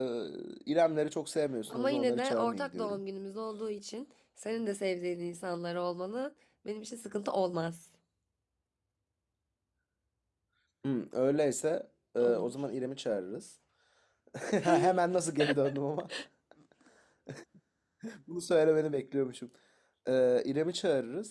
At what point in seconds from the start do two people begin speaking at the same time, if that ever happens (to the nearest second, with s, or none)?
2 s